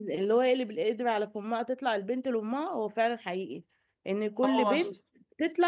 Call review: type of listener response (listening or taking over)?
listening